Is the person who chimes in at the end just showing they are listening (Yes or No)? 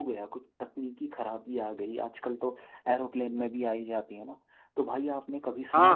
Yes